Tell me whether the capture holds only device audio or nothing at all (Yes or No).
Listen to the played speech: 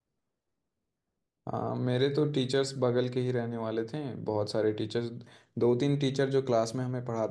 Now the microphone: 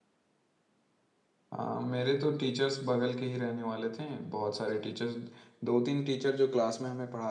Yes